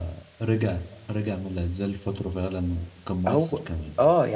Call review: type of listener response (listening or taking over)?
taking over